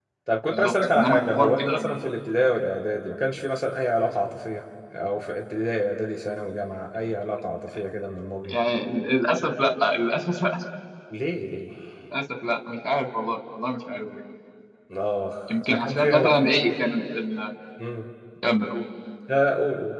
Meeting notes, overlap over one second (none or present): present